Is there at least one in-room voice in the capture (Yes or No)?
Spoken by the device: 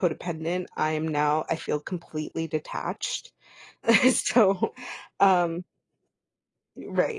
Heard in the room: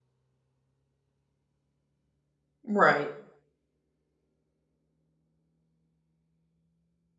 Yes